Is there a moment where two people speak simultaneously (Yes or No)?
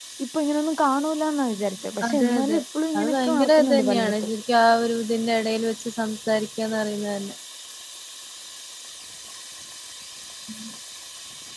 Yes